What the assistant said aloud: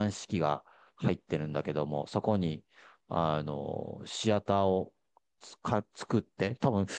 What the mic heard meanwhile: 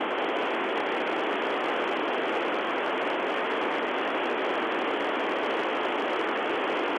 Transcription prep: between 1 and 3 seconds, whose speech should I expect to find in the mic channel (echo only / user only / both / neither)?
neither